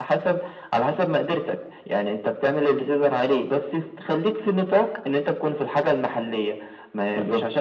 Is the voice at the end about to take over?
No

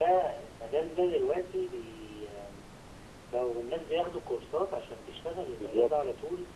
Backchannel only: Yes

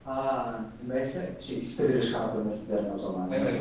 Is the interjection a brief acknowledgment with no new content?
No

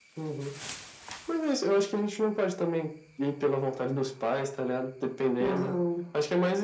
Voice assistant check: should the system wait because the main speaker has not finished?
Yes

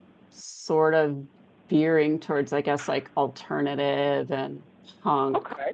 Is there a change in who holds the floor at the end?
No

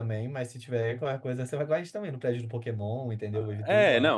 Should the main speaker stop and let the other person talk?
Yes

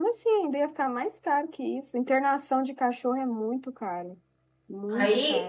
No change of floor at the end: No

